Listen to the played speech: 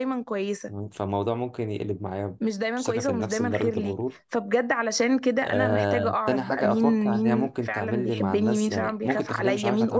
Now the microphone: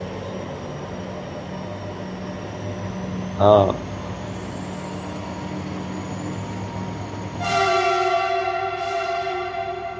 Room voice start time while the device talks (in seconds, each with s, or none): 3.4 s